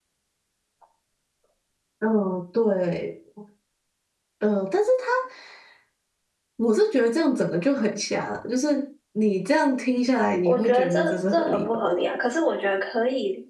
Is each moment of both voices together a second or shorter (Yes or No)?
No